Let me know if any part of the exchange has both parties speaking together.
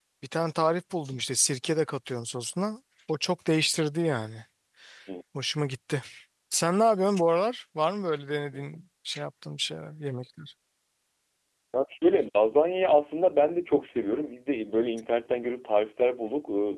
No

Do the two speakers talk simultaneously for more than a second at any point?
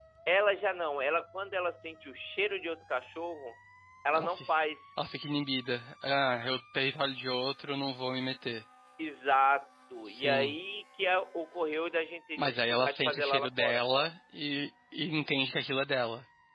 Yes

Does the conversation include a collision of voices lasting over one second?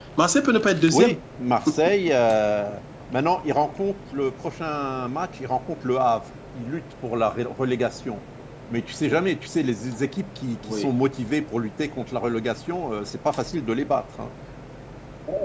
No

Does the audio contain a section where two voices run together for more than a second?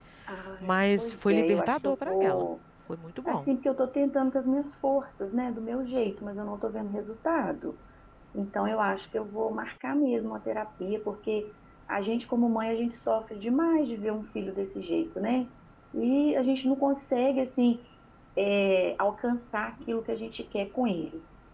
Yes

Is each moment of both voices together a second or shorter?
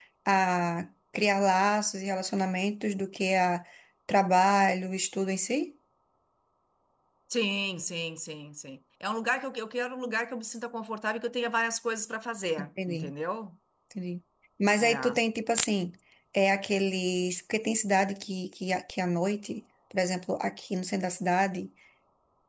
Yes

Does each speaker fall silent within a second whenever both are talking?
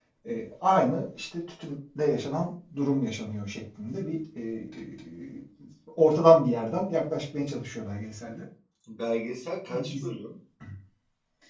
Yes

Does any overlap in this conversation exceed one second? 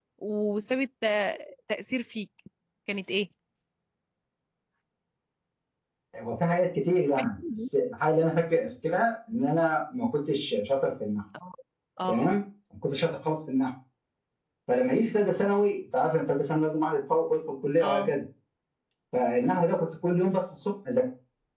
No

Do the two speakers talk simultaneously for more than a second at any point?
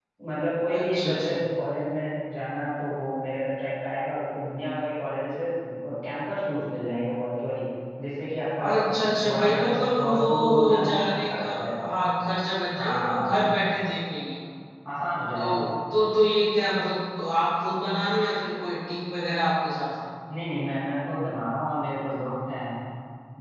Yes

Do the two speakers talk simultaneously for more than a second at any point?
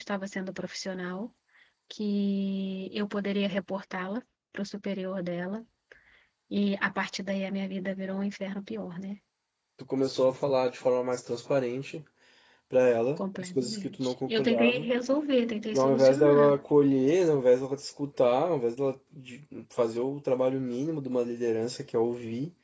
Yes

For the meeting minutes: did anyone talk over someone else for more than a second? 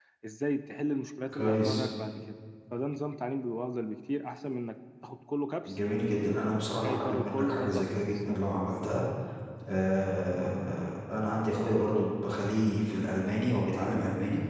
Yes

